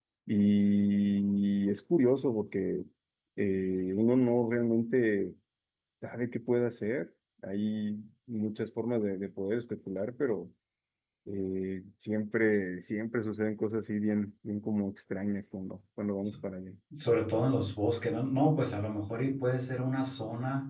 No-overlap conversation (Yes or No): Yes